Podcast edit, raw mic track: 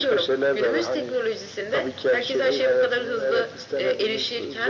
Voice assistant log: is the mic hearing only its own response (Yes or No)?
Yes